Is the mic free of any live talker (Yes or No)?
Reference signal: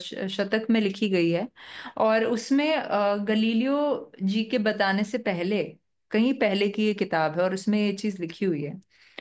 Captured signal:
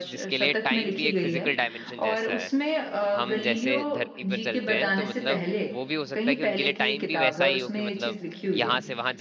No